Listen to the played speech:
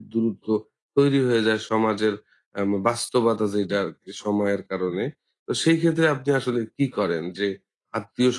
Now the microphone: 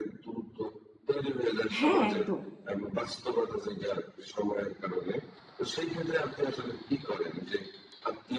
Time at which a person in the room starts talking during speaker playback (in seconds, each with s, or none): 1.8 s